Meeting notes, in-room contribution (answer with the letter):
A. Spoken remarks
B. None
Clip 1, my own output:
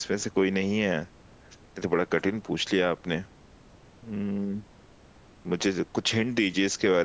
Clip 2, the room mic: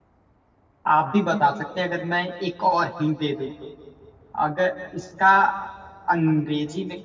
A